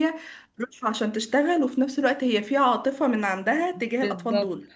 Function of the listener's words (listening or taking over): taking over